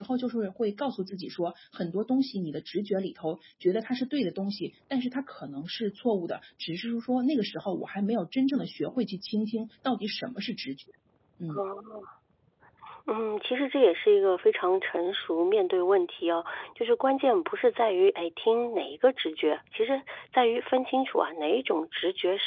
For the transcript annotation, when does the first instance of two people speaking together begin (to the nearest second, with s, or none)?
none